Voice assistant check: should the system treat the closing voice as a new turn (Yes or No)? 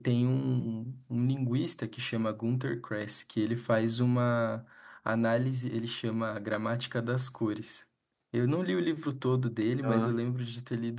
No